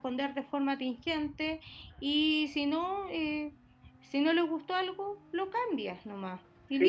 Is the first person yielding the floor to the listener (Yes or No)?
Yes